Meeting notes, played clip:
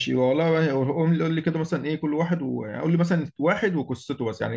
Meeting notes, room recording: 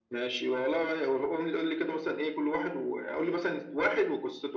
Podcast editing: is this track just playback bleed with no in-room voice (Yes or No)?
Yes